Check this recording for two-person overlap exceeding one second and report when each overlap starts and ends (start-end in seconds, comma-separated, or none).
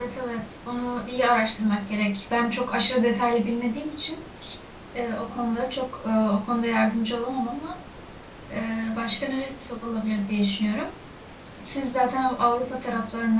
none